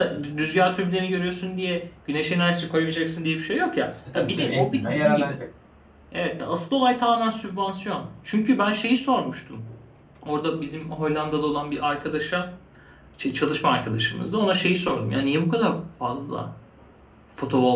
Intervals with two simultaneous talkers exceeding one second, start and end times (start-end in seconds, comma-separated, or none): 4.1-5.4